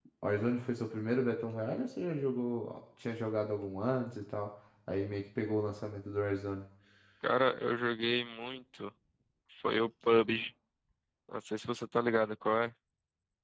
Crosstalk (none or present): none